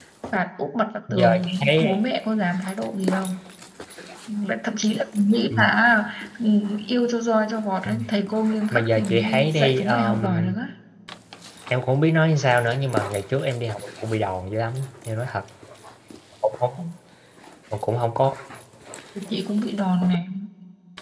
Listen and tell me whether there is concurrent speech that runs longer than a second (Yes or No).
Yes